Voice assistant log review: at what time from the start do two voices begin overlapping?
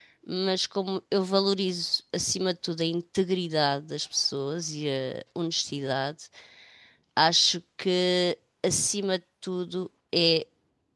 none

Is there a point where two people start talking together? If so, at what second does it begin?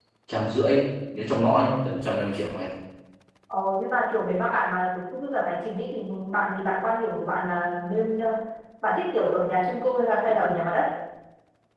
none

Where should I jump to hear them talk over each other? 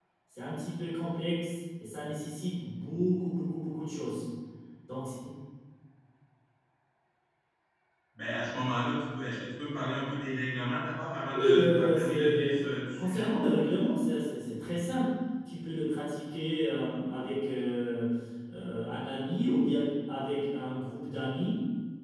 11.3 s

